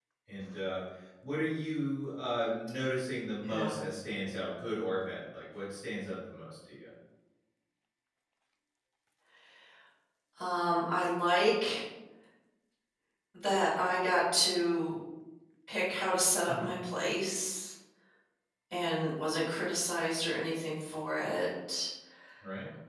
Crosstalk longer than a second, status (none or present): none